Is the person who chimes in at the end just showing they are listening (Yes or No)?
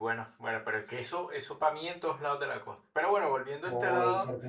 No